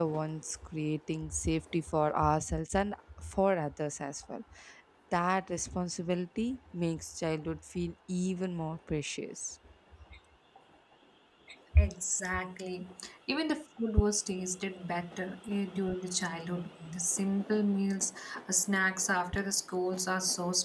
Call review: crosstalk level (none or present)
none